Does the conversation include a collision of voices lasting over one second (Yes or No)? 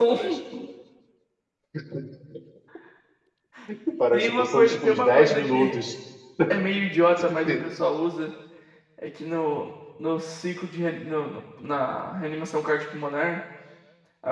Yes